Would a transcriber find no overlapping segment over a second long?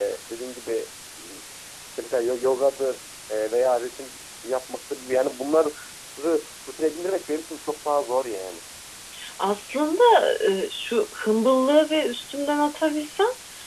Yes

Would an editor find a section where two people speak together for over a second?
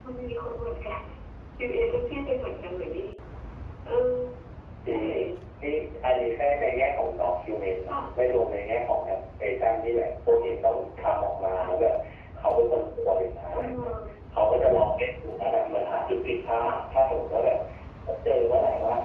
No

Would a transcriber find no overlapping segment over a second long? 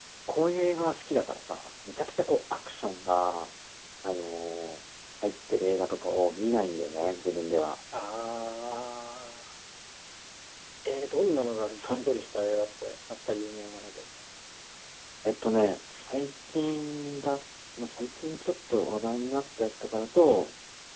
Yes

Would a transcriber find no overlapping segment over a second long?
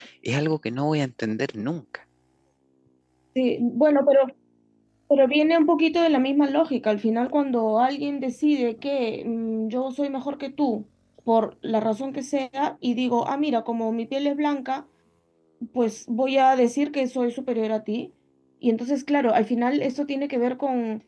Yes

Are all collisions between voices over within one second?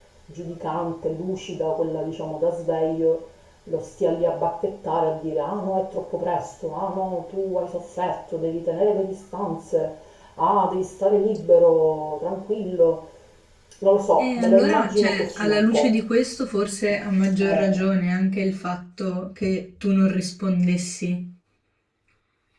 No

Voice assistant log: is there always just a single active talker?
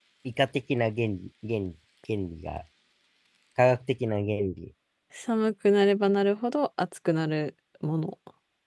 Yes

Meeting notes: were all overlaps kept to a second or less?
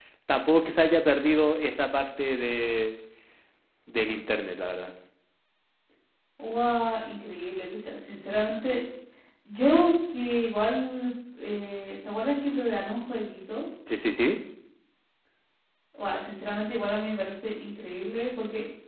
Yes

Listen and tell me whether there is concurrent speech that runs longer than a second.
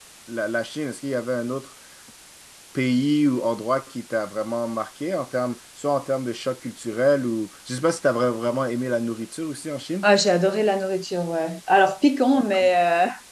No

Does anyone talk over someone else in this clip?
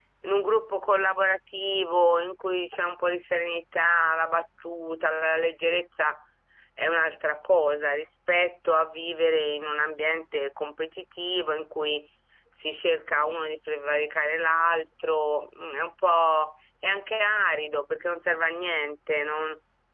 No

